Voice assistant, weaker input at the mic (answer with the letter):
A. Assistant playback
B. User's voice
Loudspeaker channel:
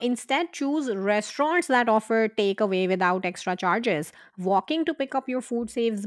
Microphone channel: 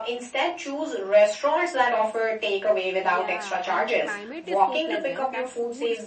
B